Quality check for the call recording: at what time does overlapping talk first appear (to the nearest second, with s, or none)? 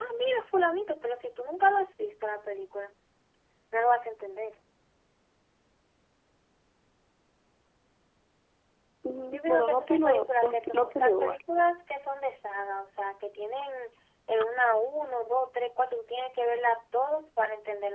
9 s